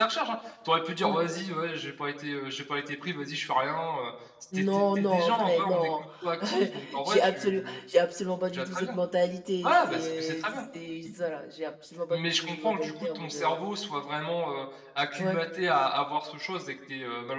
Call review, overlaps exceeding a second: present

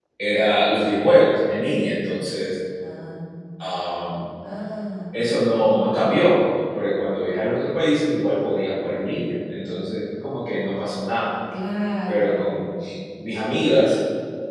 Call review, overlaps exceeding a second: none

